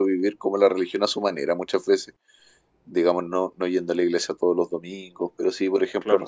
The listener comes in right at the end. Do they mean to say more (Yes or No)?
No